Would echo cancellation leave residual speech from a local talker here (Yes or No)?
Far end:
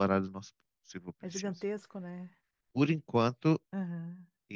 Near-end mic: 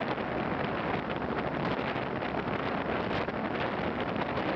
No